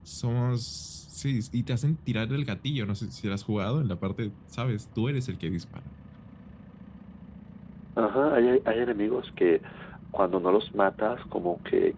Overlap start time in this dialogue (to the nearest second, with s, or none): none